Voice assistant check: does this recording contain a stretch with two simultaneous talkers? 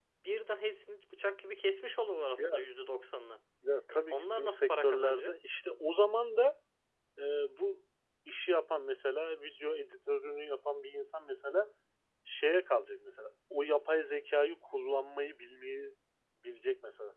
Yes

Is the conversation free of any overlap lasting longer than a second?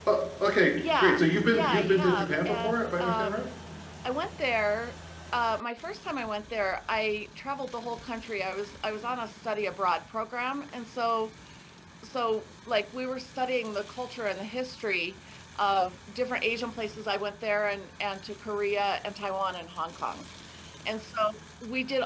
No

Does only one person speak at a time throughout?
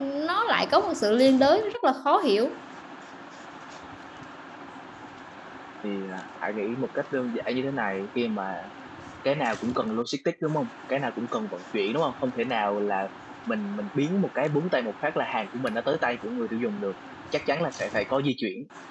Yes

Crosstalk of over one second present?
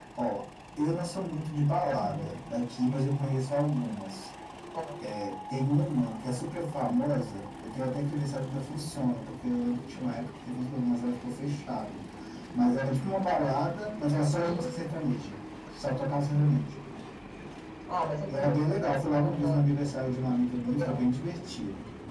No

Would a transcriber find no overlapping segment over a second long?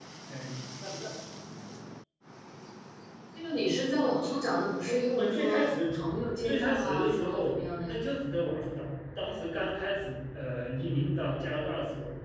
No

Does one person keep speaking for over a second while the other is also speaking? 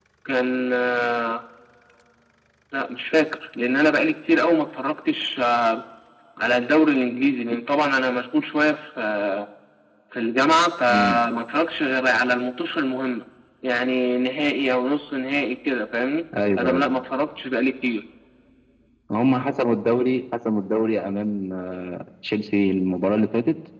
No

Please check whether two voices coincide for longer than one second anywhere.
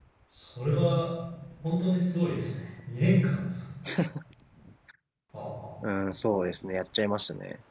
No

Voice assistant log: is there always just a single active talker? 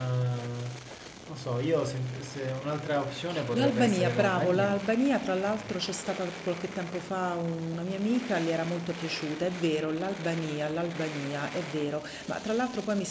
No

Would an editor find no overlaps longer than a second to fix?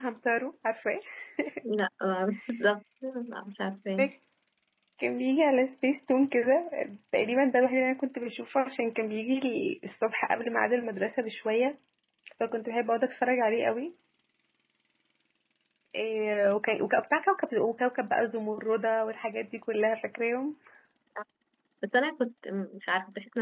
Yes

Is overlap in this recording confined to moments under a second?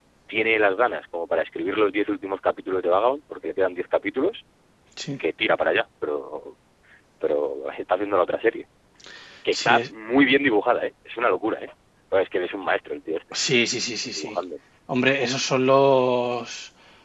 Yes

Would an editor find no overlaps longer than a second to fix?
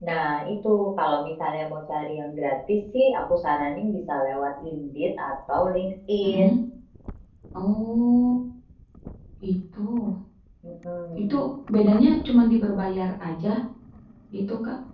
Yes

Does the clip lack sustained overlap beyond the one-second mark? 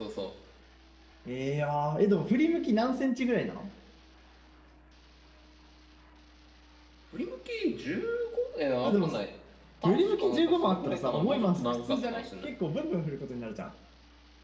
No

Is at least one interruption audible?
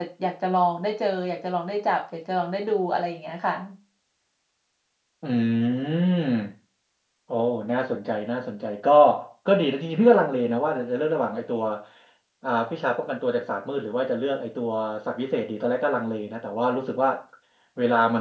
No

